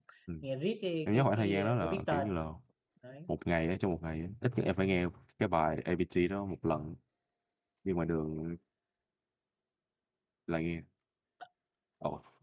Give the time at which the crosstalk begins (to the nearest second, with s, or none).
1 s